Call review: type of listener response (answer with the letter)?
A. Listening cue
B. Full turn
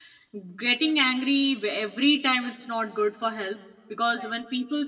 A